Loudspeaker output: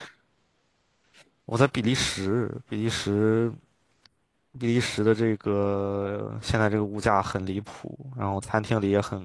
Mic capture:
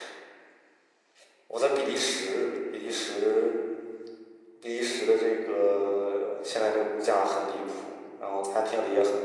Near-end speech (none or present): none